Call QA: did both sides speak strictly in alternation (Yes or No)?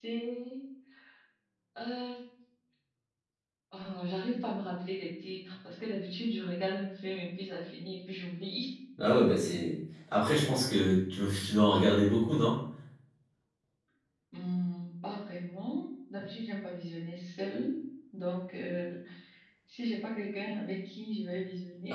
Yes